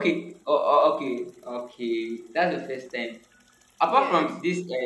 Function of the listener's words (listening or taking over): listening